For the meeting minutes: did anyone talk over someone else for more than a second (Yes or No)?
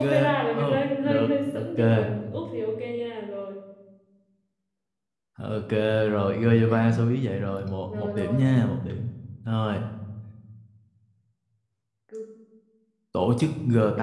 Yes